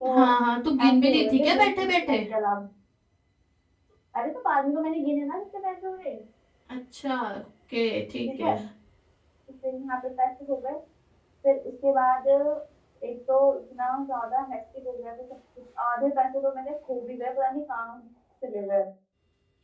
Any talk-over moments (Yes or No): Yes